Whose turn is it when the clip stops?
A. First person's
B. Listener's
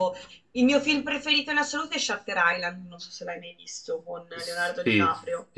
B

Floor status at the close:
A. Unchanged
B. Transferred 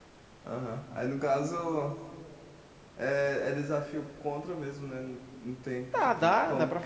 B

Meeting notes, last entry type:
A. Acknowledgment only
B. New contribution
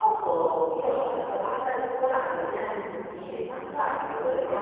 B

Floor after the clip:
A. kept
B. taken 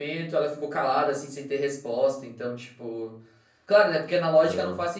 A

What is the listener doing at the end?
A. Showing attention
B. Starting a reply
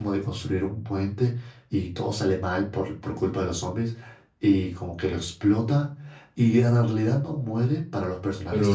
B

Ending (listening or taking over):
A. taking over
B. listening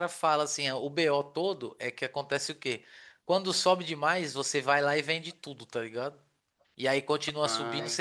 B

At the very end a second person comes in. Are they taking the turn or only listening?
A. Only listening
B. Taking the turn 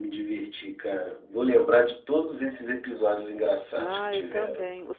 B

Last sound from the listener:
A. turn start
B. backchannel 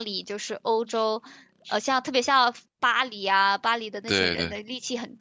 B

